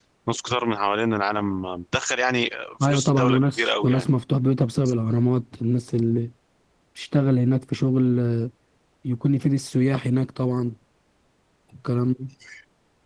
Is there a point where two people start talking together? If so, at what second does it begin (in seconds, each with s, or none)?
2.8 s